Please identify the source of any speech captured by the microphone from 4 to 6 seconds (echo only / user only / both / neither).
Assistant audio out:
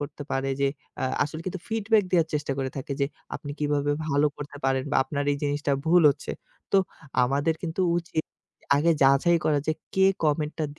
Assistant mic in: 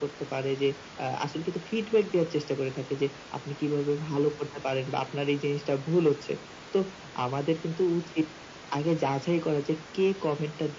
echo only